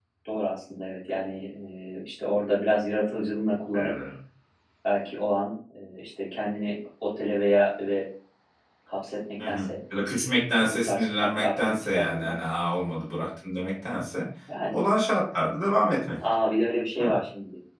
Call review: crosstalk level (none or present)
present